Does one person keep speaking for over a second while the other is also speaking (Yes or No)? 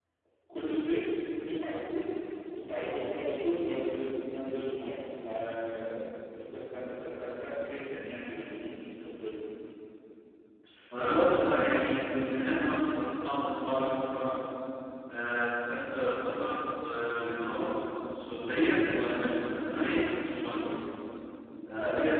No